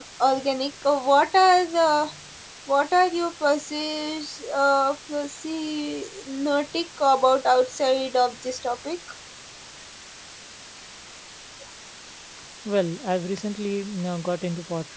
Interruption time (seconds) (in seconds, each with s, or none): none